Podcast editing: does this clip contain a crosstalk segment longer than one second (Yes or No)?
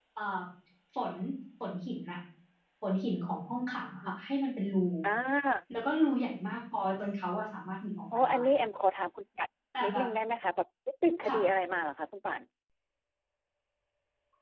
No